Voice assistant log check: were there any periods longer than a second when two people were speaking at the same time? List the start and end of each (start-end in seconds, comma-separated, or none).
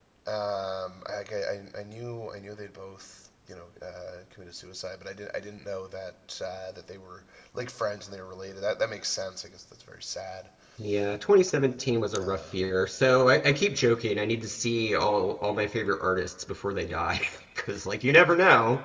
none